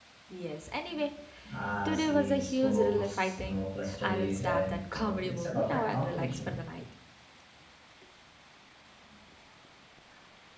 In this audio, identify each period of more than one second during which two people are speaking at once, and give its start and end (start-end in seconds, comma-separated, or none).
1.8-6.6